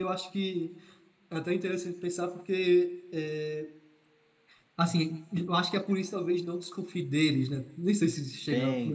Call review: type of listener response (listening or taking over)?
taking over